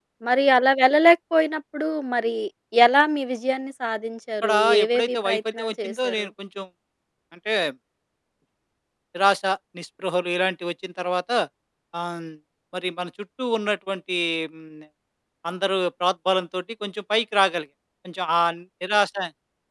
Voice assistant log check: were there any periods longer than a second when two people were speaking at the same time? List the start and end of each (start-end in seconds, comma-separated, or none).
4.4-6.3